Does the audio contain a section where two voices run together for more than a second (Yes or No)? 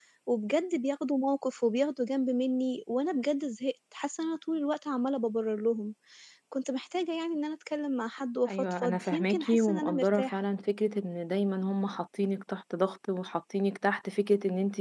Yes